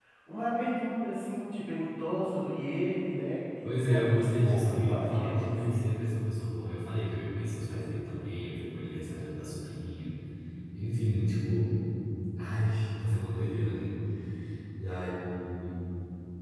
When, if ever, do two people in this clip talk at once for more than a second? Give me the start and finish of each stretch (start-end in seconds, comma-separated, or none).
3.6-5.9